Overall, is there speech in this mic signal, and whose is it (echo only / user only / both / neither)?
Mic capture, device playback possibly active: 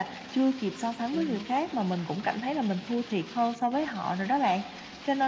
both